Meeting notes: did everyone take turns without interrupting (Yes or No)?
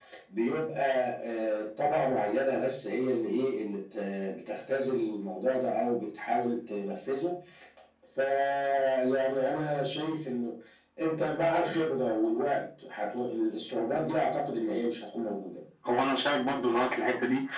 Yes